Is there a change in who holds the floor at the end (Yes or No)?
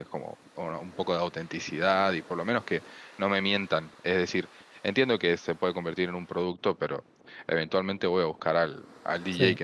Yes